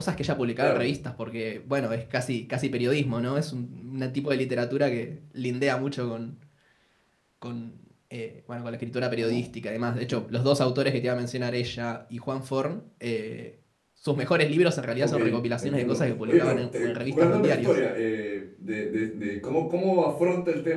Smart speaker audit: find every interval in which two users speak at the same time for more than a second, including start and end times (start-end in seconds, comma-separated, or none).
15.6-17.7